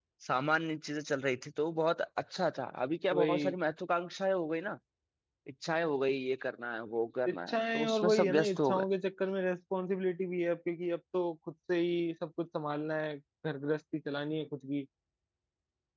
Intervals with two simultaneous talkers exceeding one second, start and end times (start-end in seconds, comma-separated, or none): 7.3-8.8